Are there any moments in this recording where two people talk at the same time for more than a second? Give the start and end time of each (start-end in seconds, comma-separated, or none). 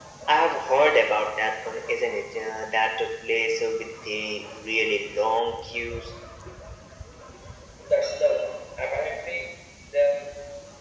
none